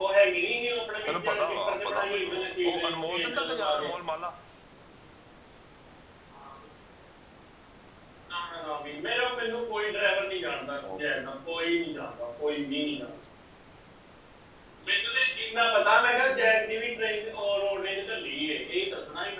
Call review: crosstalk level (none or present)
present